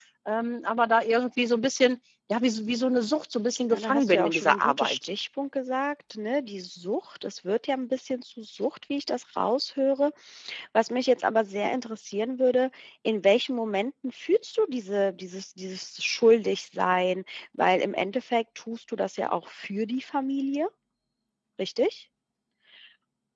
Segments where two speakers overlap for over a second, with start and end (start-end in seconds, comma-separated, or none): 3.7-5.0